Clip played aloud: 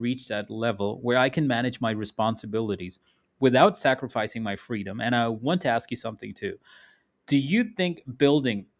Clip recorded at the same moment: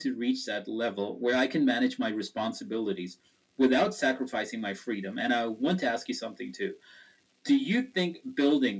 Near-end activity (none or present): none